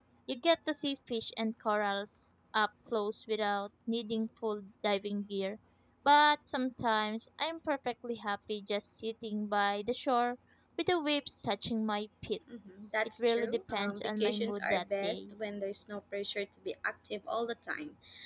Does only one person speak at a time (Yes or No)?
No